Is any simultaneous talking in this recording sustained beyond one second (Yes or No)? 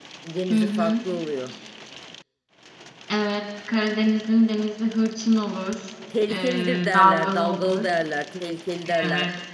Yes